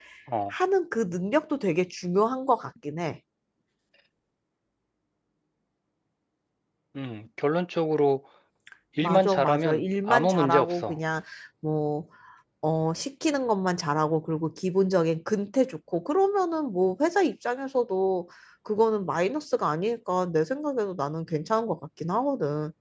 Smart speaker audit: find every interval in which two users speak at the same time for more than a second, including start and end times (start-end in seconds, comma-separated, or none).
9.0-11.0